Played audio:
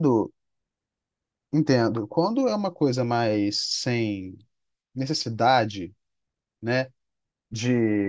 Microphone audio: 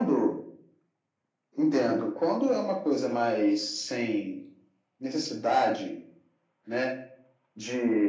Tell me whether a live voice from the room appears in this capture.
No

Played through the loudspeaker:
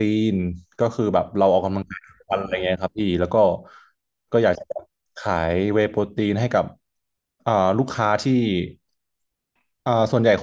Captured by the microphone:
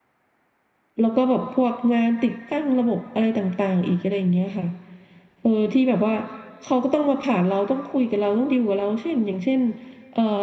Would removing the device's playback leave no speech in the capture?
No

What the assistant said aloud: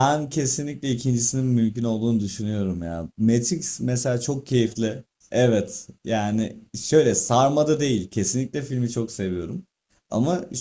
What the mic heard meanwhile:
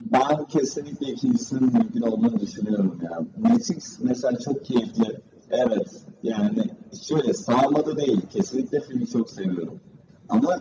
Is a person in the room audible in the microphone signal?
No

